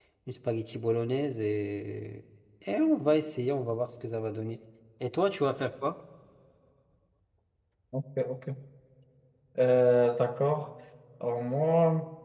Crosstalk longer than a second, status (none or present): none